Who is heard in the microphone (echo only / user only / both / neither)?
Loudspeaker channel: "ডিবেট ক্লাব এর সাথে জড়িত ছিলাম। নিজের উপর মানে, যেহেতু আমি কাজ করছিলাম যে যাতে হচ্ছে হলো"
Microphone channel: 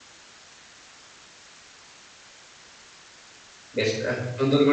user only